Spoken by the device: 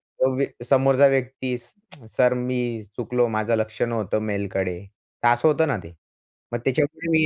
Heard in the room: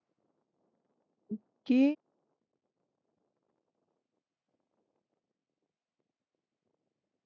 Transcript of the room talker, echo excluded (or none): ओके